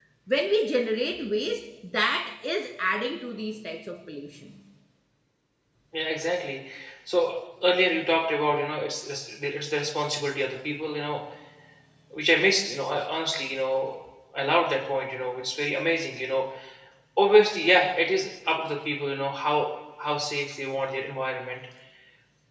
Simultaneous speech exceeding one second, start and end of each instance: none

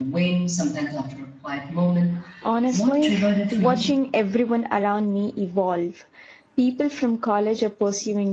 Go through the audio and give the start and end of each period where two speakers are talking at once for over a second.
2.7-3.9

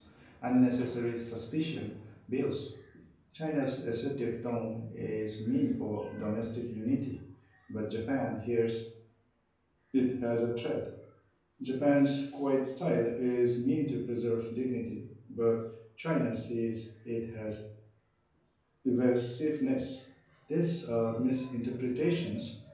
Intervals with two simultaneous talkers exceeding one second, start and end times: none

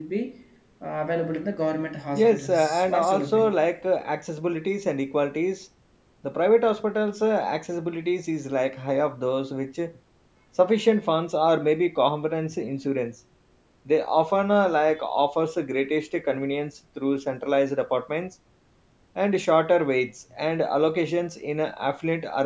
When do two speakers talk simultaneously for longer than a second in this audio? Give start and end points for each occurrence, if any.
2.1-3.5

